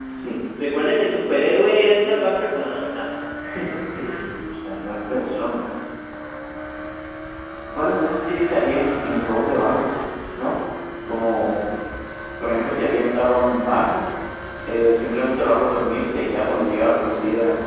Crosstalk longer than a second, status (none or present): none